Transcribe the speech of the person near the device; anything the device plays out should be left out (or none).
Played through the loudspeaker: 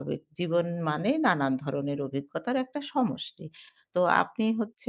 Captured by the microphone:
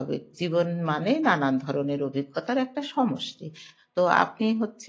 none